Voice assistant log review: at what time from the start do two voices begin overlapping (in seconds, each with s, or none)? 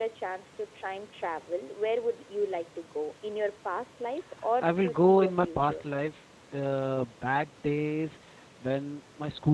4.6 s